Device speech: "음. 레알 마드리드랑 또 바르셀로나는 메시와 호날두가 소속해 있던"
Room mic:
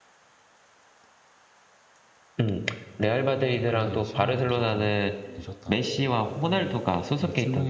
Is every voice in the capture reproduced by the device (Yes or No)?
No